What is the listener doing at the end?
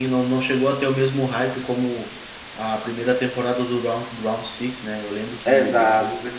taking over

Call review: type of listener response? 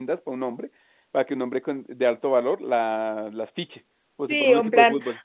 taking over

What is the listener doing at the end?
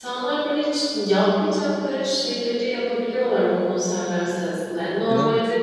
listening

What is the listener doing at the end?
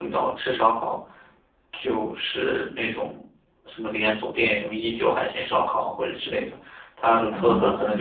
taking over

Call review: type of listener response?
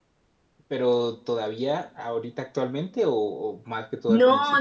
taking over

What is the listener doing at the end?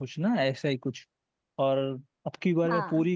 listening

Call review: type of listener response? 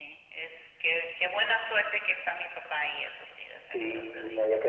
taking over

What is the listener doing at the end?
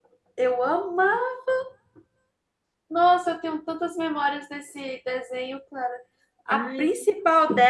listening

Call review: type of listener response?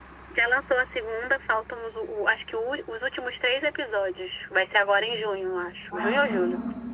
taking over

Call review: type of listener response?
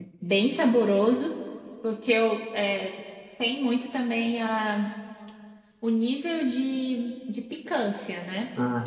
listening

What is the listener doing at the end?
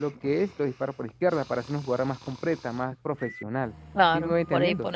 taking over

